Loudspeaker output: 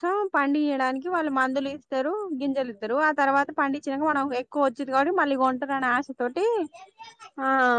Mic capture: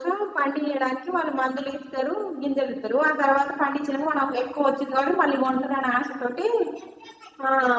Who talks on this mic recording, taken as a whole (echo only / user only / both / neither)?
echo only